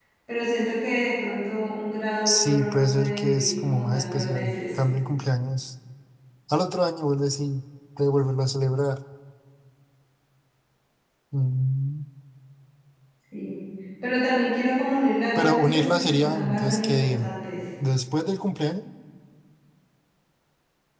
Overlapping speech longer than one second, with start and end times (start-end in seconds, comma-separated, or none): 2.2-4.8, 15.4-17.3